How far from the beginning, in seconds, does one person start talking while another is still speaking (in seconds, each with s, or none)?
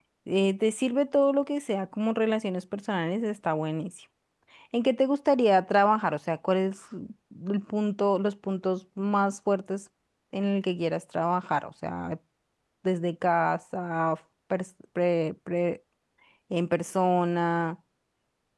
none